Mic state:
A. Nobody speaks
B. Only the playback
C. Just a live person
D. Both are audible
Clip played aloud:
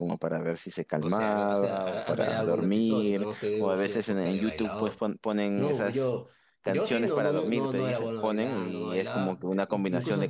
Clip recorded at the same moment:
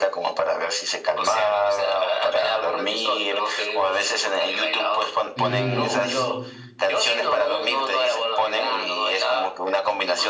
D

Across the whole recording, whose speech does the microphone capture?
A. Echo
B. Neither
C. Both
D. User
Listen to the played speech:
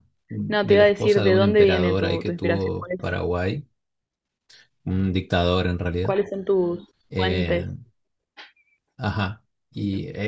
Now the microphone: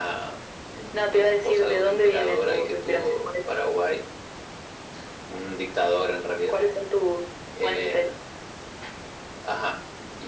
A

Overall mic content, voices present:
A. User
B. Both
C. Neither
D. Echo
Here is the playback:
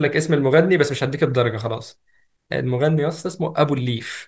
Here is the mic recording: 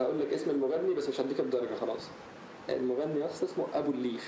D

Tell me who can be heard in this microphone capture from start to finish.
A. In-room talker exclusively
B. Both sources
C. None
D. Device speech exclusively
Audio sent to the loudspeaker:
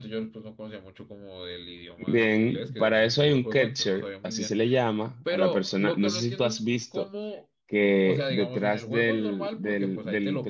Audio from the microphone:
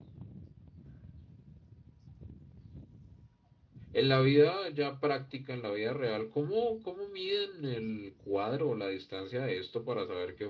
A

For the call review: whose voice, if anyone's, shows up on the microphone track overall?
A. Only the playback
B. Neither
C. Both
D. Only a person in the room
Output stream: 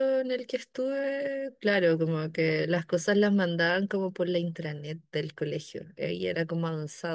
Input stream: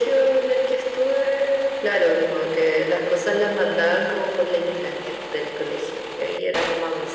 A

